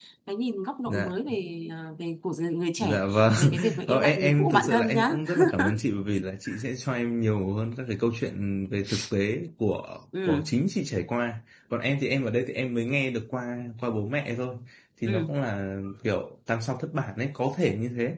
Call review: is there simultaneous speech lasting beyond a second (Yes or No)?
Yes